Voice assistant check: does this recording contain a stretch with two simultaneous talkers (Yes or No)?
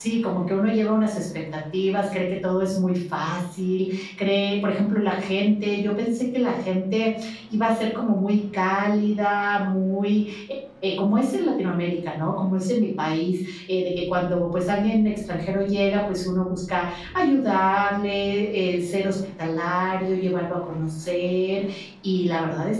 No